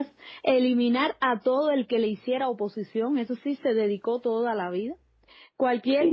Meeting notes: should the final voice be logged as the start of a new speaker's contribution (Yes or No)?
No